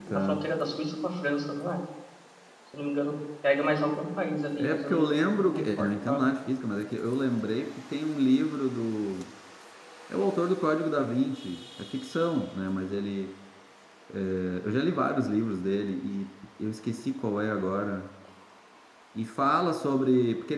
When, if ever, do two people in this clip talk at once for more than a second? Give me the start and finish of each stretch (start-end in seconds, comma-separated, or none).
4.5-6.2